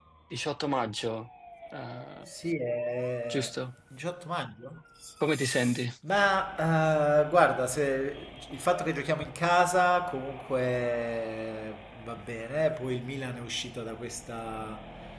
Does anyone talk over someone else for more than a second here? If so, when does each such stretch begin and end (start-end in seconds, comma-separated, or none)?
none